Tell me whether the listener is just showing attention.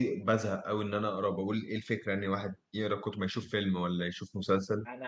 No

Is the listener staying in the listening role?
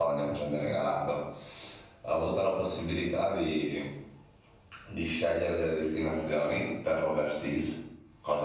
Yes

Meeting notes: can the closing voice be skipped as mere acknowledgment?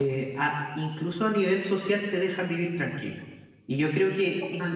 Yes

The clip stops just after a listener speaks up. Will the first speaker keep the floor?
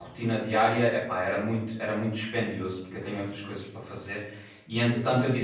Yes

